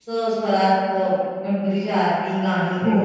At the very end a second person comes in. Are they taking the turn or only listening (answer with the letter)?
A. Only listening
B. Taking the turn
B